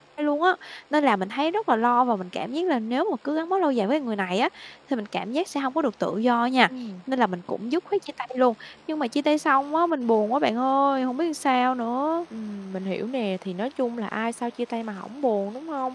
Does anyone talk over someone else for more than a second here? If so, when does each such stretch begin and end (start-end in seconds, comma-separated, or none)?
none